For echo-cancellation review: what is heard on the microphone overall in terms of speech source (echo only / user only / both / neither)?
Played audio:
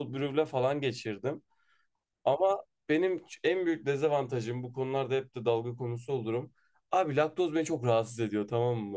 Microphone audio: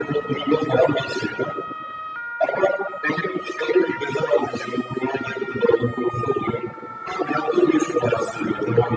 echo only